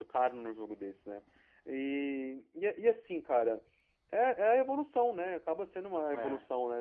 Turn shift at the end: No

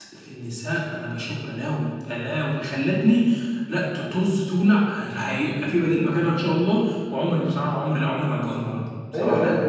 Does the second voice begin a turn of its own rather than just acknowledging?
Yes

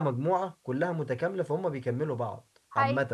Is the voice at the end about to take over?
Yes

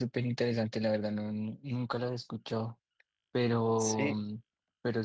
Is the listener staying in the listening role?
Yes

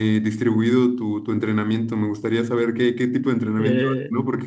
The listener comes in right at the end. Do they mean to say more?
No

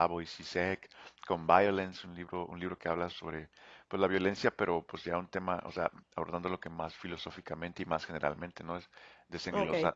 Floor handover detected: No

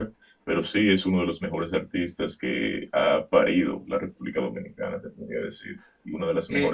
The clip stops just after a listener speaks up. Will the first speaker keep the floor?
No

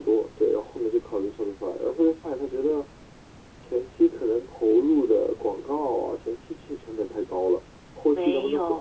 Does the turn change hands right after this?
Yes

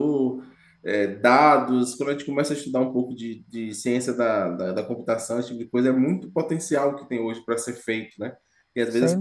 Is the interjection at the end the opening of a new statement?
No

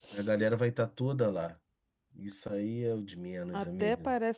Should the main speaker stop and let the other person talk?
Yes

